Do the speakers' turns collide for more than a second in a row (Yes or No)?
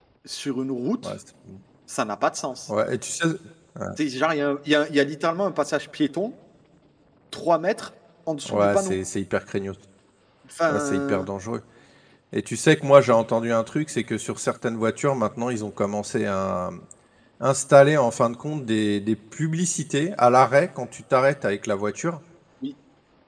No